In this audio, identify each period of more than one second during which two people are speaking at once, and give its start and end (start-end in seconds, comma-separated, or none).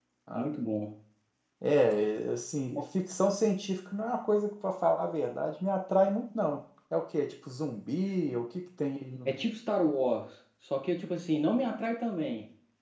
none